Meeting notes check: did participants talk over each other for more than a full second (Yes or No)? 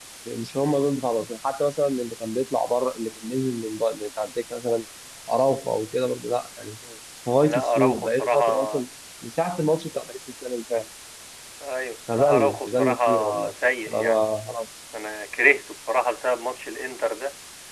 Yes